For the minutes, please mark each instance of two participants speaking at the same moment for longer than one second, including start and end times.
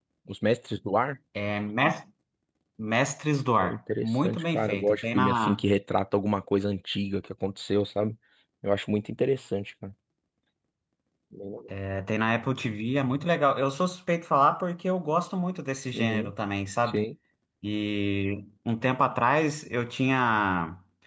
3.6-5.6

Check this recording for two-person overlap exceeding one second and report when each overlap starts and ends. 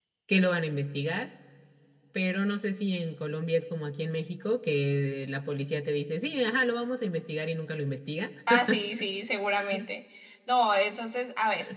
none

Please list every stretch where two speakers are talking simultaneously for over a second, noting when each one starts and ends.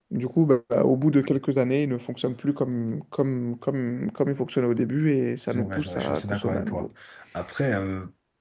5.5-6.8

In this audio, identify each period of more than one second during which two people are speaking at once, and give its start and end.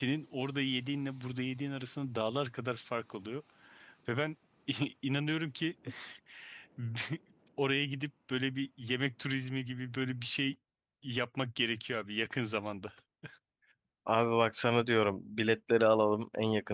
none

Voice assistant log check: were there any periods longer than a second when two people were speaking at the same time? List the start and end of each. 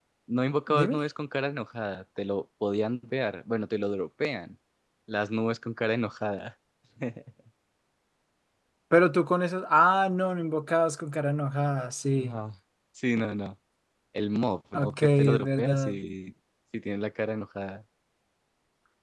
14.7-16.0

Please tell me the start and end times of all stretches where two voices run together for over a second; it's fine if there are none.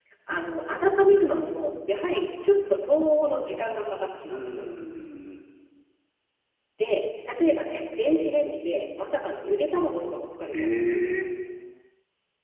none

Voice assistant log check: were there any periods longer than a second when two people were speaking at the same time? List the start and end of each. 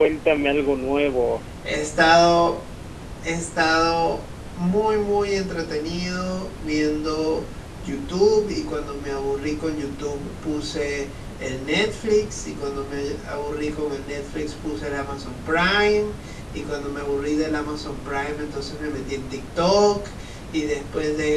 none

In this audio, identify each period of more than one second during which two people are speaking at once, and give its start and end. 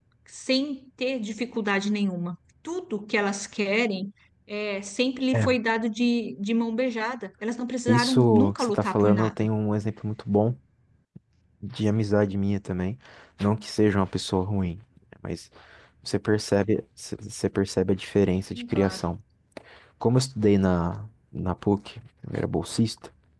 7.9-9.5

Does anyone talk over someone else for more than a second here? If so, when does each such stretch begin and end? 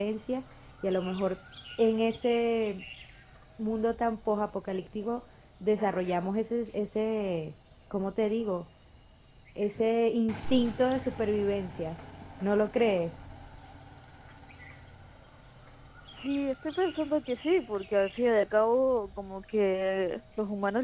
none

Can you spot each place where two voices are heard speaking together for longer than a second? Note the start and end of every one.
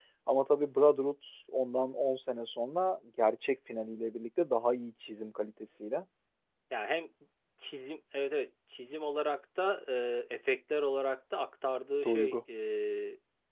none

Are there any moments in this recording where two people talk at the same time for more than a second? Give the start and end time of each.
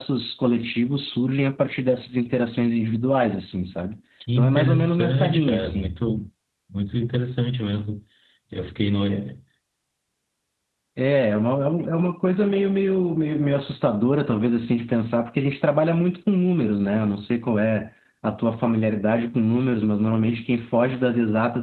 4.4-5.9

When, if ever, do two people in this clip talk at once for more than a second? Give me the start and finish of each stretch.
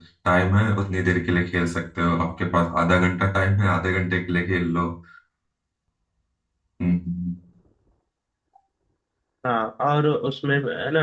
none

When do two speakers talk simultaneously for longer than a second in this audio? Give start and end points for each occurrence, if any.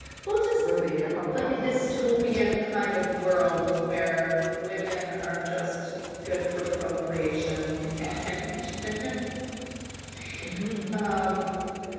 0.6-1.9

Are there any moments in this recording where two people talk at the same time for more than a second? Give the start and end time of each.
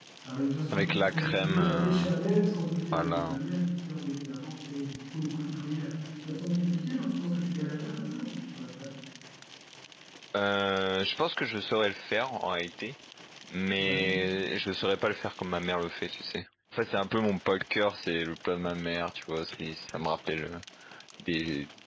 0.7-2.0

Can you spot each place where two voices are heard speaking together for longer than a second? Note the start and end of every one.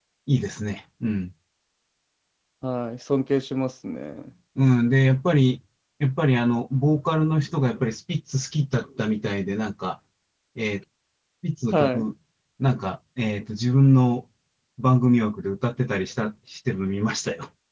none

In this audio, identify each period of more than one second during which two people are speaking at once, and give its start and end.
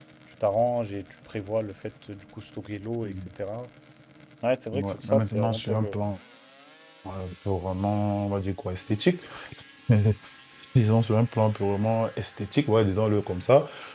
4.7-6.0

